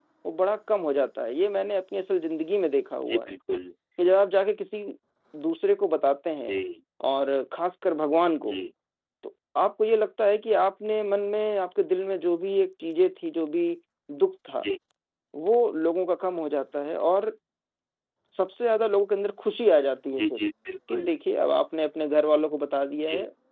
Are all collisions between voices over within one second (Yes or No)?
Yes